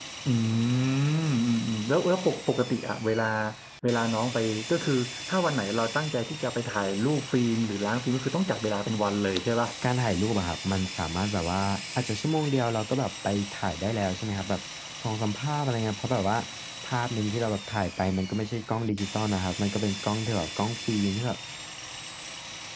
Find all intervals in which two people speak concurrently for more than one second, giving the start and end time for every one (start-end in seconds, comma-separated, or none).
none